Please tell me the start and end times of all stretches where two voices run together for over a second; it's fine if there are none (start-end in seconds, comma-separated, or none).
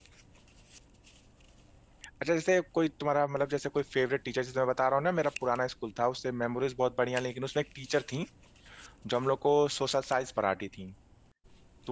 none